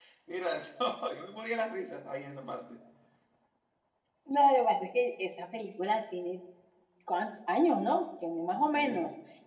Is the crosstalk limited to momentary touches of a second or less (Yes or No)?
Yes